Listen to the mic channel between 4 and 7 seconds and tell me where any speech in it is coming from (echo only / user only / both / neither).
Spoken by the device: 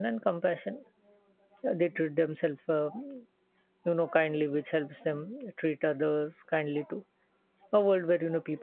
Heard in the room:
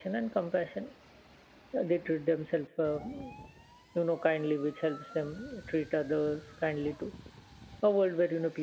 echo only